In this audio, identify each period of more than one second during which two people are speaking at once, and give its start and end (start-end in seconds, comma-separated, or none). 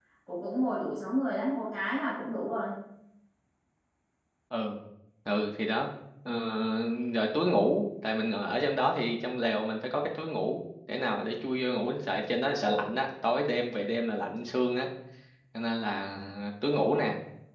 none